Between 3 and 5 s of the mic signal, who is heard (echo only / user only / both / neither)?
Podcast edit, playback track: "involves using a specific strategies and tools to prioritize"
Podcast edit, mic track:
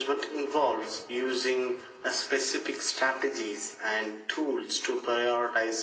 echo only